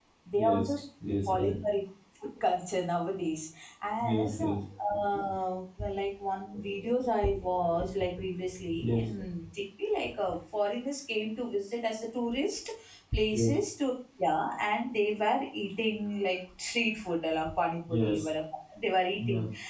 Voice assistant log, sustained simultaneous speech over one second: none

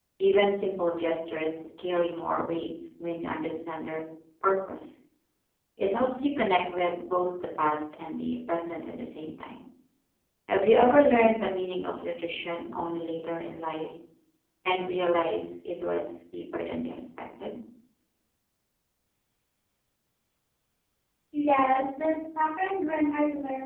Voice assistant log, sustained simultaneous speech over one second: none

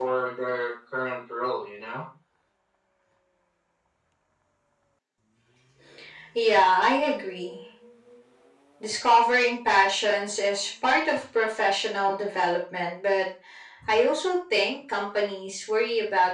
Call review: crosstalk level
none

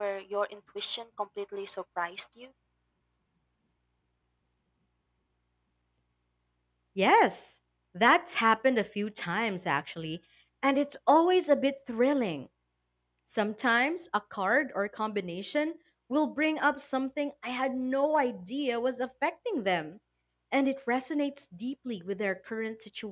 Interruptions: none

